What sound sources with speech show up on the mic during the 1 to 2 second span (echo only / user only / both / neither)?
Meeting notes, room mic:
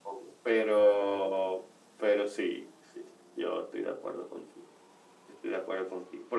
echo only